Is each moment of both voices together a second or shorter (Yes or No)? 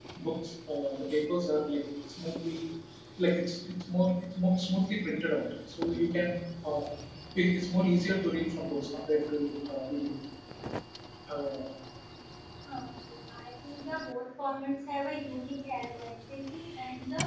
Yes